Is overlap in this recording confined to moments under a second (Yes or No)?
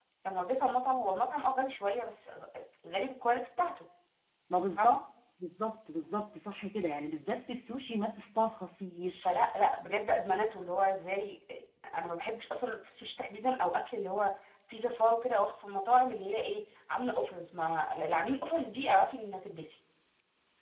Yes